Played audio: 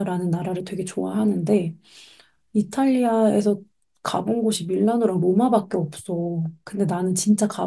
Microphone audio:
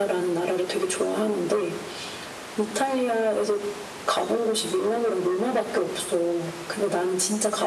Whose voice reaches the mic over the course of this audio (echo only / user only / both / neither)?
echo only